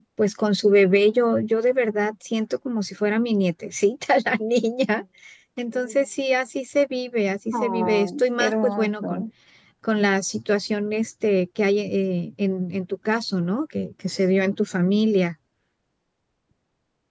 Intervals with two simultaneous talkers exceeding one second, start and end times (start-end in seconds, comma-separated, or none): 7.5-9.2